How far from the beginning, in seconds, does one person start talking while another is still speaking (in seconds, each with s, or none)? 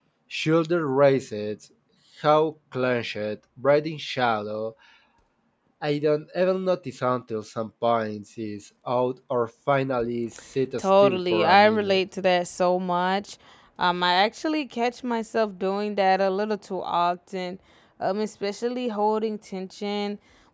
10.8 s